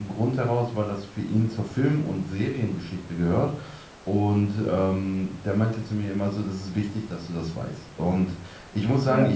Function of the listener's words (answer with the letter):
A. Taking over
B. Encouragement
B